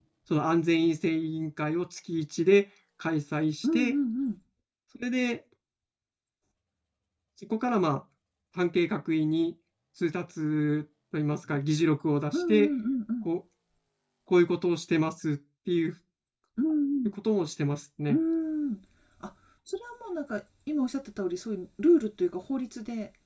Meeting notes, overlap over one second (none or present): none